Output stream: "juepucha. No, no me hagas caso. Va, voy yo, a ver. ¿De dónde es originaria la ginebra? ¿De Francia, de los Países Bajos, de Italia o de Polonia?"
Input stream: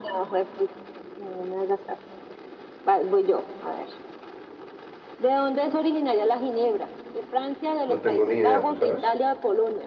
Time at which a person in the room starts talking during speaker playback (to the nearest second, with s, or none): 8 s